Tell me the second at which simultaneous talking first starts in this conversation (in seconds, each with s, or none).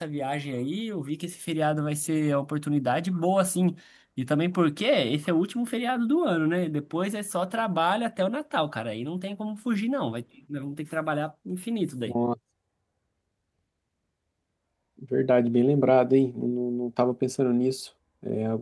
none